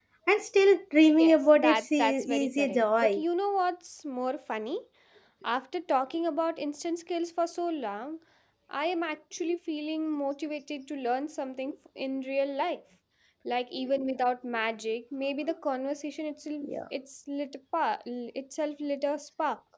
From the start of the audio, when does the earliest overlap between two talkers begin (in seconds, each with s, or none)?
1.2 s